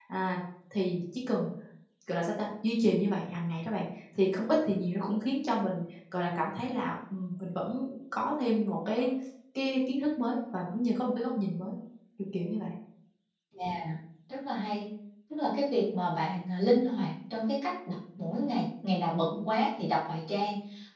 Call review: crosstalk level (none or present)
none